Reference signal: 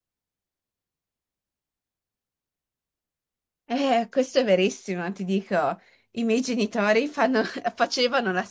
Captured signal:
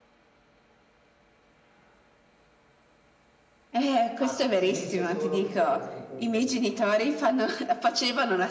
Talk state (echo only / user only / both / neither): both